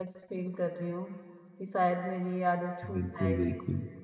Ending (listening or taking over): taking over